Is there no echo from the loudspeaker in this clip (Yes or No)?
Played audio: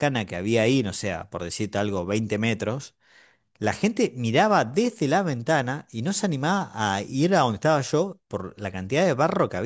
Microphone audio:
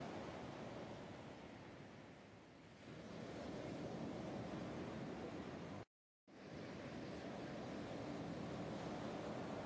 Yes